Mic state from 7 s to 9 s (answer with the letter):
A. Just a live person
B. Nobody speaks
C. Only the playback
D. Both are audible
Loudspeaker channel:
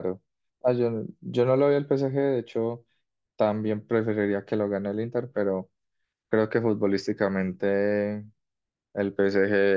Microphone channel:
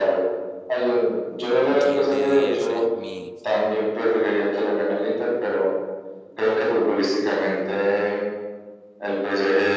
C